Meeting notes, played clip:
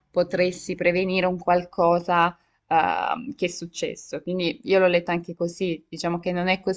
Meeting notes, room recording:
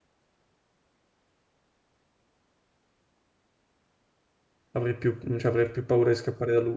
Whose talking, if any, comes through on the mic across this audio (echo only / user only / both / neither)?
user only